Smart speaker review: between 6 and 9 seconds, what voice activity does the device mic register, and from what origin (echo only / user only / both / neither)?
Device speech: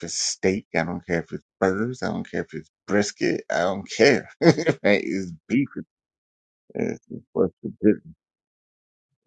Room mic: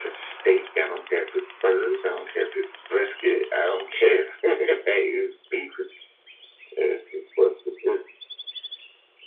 echo only